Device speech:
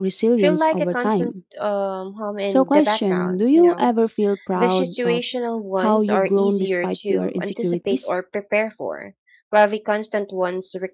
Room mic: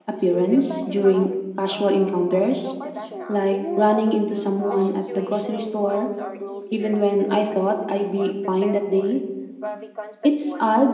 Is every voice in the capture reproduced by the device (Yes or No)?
No